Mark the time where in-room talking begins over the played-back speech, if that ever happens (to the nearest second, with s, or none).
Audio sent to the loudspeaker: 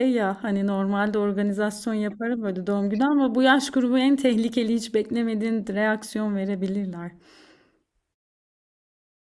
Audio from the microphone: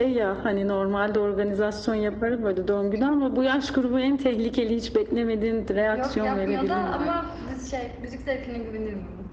6 s